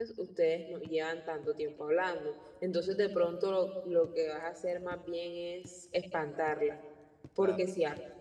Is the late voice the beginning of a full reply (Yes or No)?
No